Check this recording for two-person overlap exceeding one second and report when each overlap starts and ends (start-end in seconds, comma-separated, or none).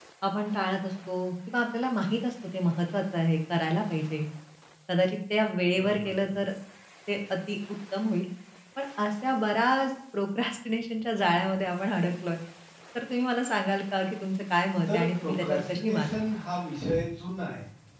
14.9-16.1